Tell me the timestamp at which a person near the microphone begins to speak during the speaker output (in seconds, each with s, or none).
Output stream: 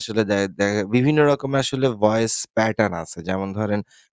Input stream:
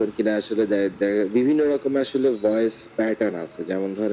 none